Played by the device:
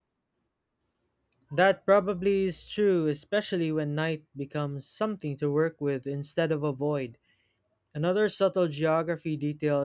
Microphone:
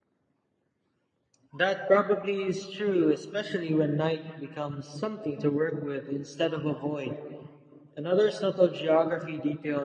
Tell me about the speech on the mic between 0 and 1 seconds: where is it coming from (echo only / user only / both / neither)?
neither